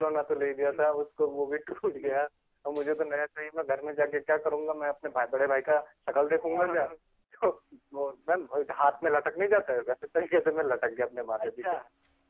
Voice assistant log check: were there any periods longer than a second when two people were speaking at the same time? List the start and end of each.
none

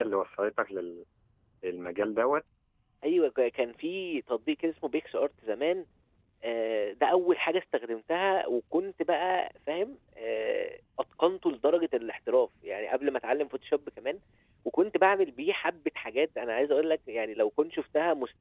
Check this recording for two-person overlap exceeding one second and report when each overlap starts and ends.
none

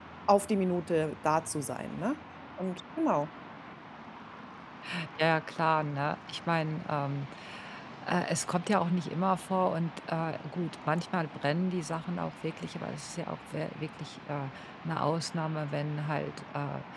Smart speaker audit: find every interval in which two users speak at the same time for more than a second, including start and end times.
none

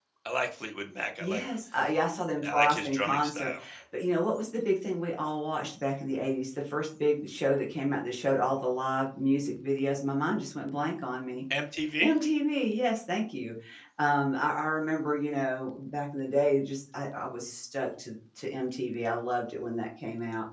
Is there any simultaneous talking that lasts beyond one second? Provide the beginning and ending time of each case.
2.3-3.5

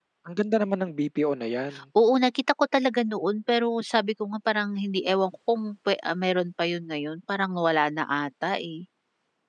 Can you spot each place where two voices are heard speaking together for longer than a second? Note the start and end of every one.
none

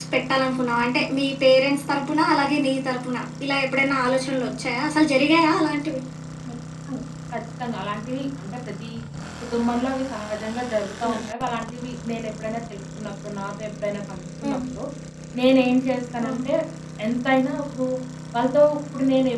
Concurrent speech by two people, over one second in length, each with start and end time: none

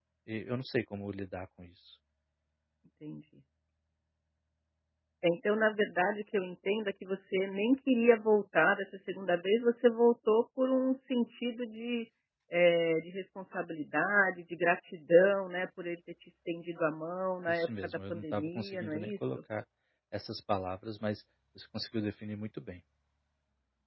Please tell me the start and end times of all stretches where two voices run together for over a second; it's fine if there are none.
17.5-19.4

